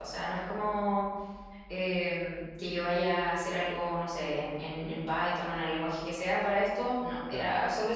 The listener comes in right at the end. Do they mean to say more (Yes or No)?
No